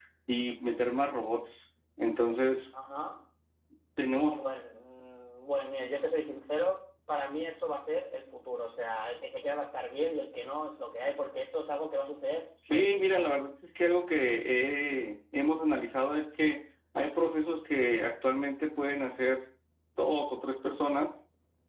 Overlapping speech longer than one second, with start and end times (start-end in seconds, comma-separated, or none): none